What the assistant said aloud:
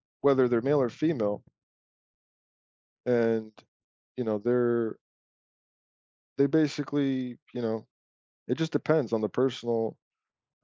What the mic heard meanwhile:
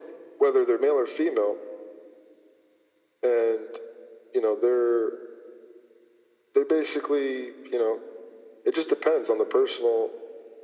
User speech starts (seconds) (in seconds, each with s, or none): none